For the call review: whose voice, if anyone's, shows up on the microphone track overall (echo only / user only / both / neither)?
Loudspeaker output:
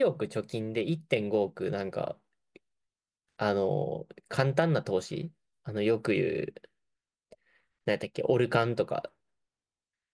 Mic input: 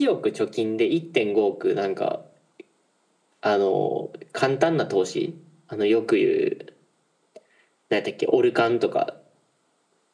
echo only